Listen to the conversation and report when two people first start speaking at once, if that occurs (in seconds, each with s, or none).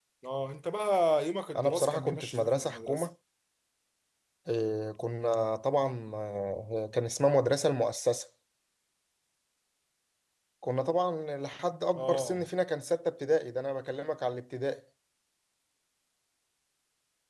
1.6 s